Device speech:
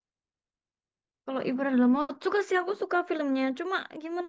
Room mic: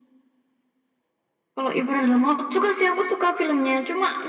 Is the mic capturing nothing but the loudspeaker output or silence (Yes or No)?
Yes